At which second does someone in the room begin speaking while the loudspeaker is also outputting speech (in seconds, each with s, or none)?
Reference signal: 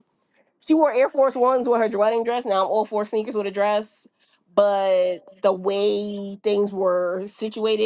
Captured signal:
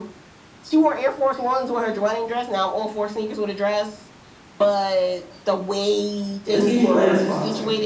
6.4 s